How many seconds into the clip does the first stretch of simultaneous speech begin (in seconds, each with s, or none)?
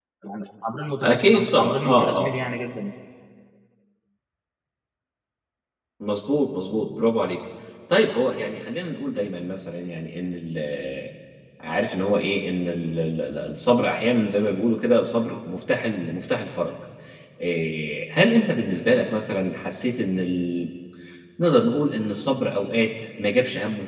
1.0 s